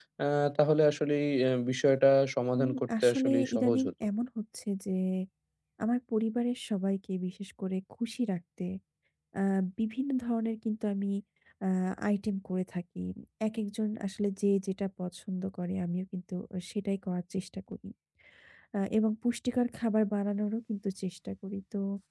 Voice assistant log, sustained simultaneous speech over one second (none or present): present